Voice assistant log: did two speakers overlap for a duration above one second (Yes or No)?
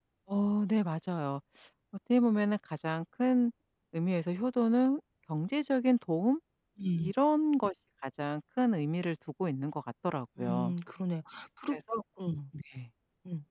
No